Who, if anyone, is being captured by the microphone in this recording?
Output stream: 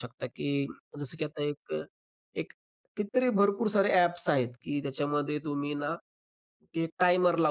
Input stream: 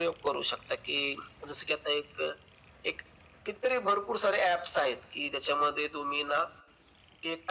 echo only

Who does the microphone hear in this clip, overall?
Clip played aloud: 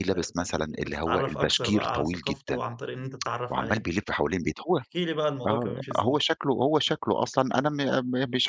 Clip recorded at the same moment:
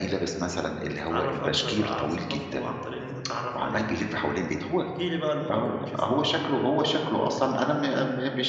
echo only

